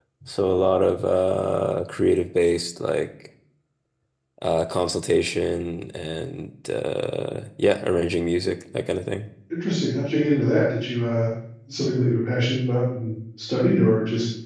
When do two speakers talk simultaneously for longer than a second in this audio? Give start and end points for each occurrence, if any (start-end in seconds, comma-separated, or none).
none